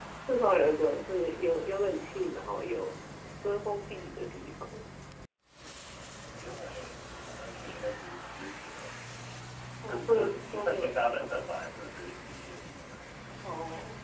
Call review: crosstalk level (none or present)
present